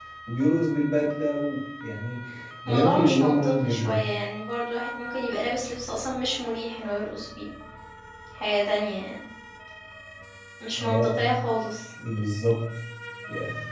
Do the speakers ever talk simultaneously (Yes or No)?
Yes